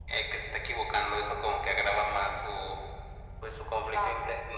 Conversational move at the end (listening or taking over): listening